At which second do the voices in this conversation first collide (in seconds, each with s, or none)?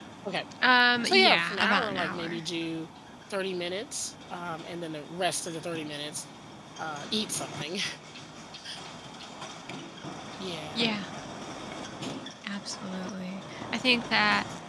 1.0 s